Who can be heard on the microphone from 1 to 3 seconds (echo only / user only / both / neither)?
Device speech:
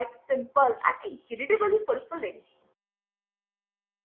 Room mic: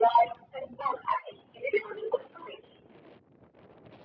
echo only